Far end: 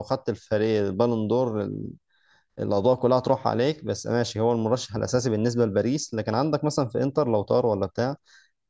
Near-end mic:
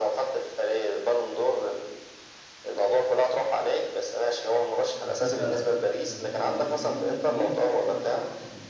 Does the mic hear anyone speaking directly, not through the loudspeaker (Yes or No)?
Yes